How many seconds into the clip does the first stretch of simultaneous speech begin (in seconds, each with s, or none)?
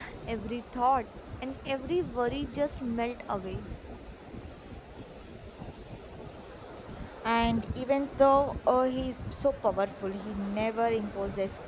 none